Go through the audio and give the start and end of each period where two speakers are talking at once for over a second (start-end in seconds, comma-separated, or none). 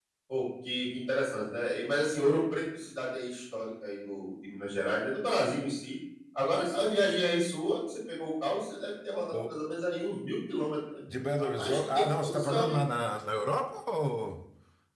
11.4-12.8